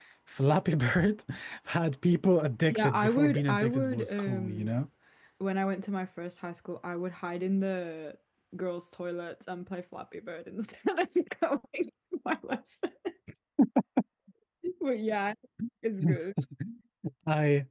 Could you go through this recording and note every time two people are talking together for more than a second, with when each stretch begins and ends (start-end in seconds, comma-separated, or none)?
2.7-4.8